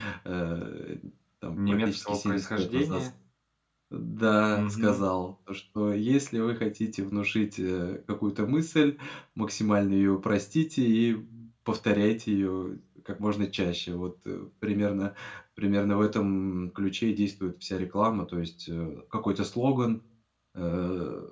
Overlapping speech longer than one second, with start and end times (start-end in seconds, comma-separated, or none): 1.6-3.0